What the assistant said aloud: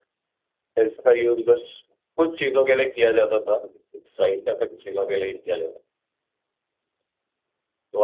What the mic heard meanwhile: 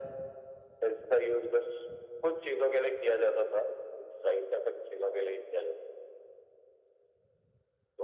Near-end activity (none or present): none